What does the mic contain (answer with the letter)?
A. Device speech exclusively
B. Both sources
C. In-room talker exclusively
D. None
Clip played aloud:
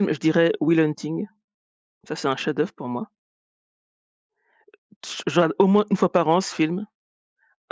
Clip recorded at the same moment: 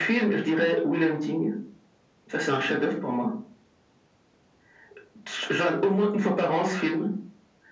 A